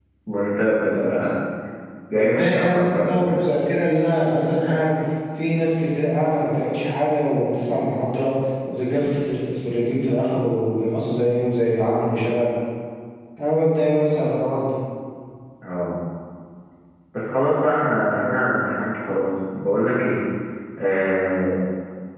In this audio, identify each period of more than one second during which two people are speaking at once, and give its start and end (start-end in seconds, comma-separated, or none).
2.1-3.4